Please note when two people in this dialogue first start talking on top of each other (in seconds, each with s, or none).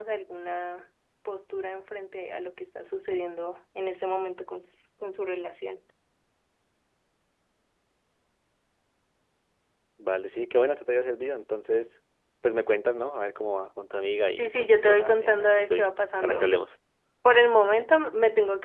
14.4 s